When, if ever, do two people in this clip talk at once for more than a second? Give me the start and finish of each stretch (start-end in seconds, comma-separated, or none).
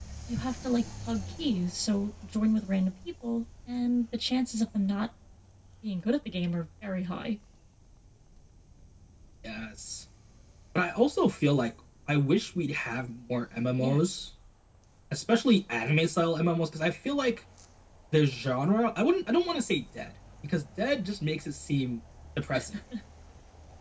none